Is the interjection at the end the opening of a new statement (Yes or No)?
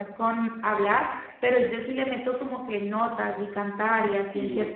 Yes